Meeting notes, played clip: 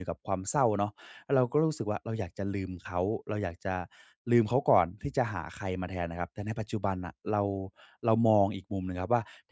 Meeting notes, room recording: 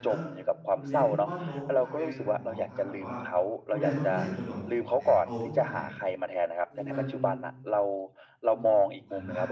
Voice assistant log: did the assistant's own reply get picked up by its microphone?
Yes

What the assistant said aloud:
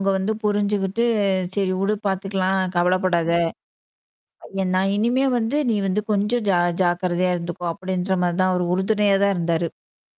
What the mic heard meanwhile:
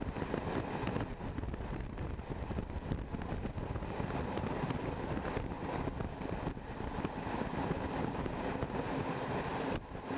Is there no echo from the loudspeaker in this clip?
Yes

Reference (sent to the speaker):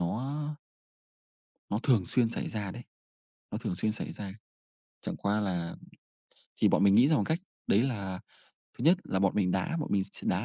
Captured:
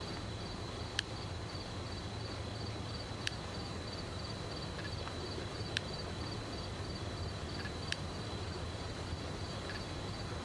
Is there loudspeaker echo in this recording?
No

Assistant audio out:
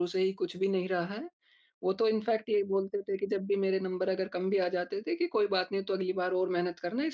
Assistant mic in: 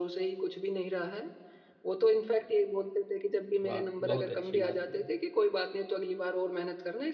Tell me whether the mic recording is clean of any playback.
No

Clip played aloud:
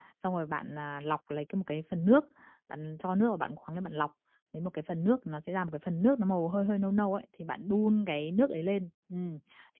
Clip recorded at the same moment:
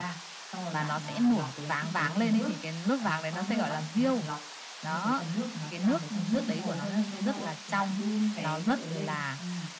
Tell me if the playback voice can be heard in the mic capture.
Yes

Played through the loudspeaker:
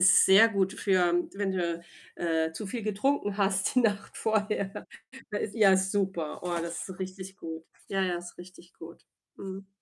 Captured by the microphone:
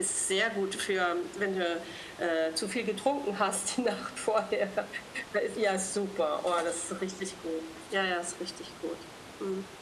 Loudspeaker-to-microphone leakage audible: Yes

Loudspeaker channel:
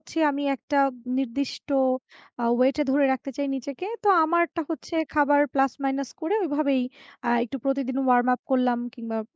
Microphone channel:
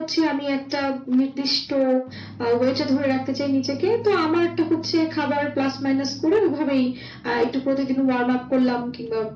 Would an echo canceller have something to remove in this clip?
Yes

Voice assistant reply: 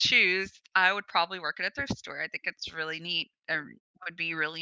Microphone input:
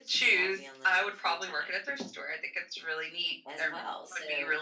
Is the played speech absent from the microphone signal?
No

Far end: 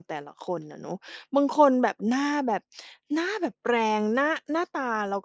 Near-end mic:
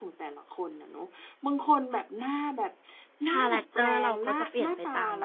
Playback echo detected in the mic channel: Yes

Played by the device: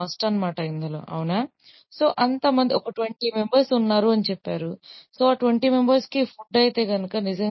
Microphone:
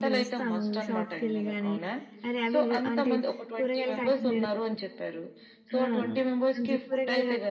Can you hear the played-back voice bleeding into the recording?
Yes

